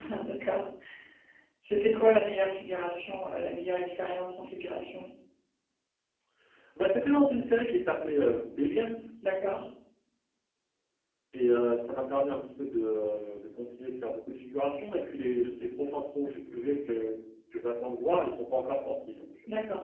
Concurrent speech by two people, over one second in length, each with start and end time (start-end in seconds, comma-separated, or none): none